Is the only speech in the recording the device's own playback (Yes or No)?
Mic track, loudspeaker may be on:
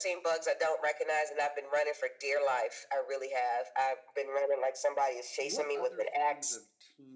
No